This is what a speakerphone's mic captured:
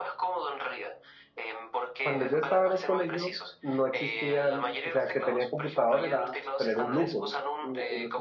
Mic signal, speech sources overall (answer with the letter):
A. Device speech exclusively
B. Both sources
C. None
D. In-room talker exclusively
B